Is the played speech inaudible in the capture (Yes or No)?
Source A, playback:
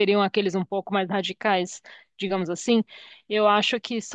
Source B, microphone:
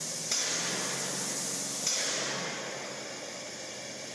Yes